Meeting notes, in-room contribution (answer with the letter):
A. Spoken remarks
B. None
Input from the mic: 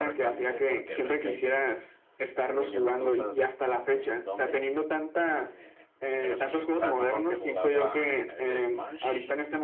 A